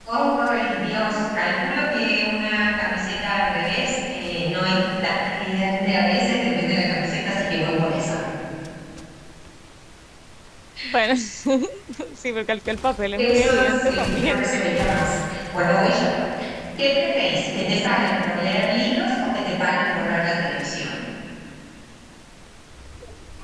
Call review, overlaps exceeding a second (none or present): present